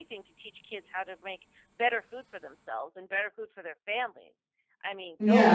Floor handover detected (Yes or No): Yes